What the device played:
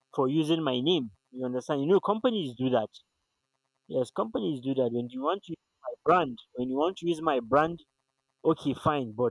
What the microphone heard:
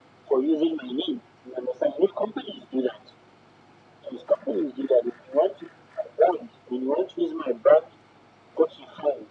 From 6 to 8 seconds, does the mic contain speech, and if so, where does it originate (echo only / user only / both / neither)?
echo only